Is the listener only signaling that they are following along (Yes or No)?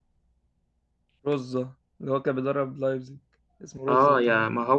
No